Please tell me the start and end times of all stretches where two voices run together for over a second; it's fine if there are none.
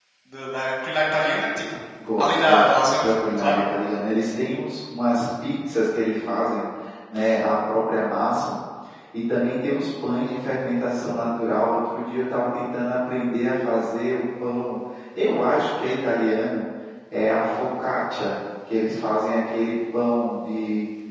2.2-3.6

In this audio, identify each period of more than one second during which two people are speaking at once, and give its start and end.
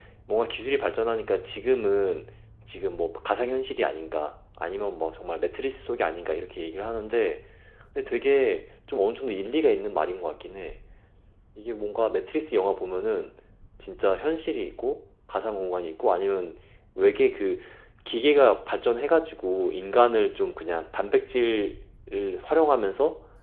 none

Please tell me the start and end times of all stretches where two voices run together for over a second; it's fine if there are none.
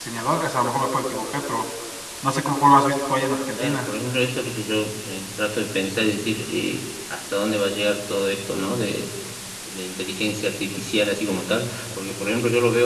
none

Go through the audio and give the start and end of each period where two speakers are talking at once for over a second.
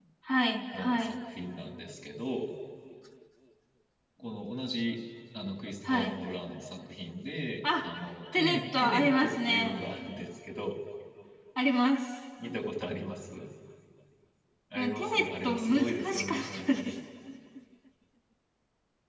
8.3-9.8, 14.8-17.0

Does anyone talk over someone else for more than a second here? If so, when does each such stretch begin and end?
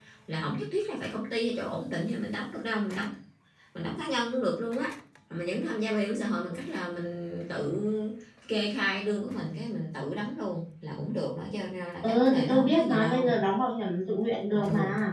12.0-13.4

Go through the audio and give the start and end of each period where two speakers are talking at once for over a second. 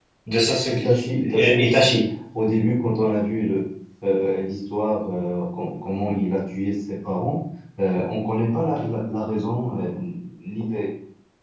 0.7-2.0

